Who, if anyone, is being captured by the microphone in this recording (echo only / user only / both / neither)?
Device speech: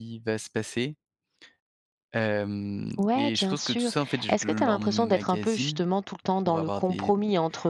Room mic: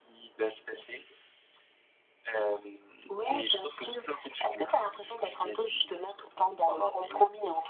echo only